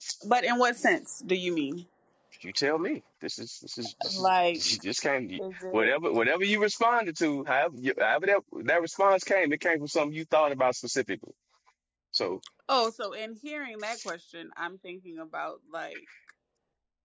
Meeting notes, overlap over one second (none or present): none